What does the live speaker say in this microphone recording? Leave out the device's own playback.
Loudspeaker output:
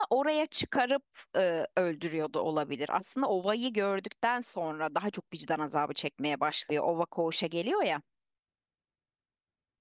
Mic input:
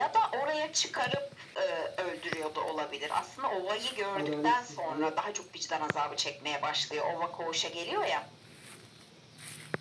adaletsizliğe

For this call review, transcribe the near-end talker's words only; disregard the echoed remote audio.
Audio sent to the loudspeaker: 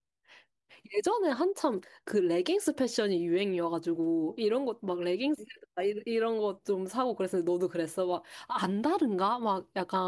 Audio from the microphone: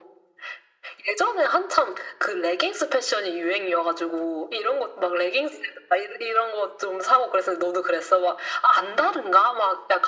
none

